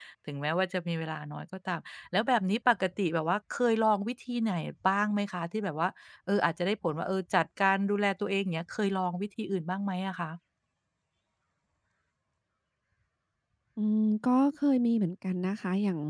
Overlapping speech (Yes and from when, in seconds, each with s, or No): No